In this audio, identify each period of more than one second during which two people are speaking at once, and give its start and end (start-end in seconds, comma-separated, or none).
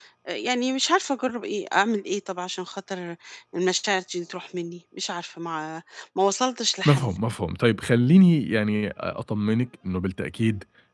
none